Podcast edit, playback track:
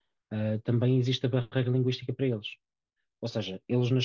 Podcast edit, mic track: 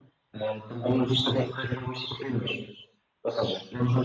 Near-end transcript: none

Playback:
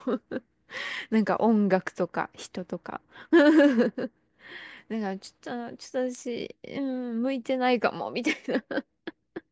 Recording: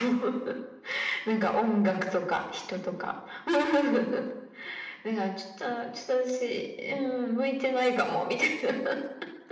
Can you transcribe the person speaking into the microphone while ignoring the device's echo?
none

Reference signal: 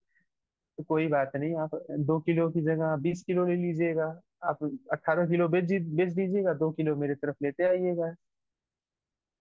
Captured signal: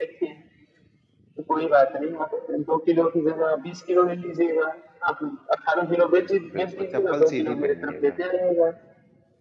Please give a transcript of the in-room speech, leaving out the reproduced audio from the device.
बिल्कुल बिल्कुल चप्पल सीधी पहनिएगा

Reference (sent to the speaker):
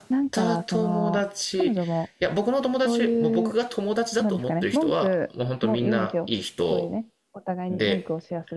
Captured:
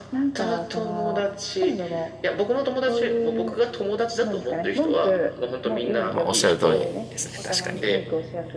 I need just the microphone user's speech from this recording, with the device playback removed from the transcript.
まあ、おっしゃる通りですね、確かに。

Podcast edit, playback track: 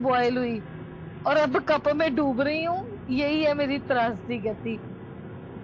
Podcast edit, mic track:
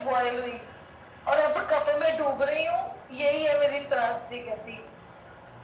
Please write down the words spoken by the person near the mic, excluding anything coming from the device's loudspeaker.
none

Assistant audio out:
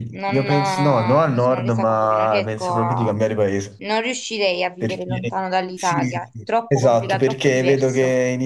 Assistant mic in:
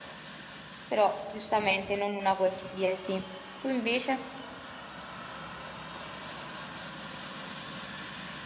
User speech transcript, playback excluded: però giustamente non una qualsiasi. Tu invece?

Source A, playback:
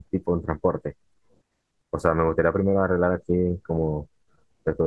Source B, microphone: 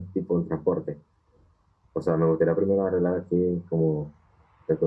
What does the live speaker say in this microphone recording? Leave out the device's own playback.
none

